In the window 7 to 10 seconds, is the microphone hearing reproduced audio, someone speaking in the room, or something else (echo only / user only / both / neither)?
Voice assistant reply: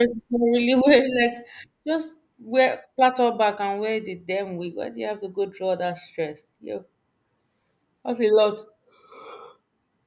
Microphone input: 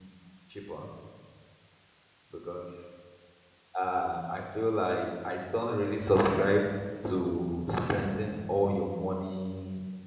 user only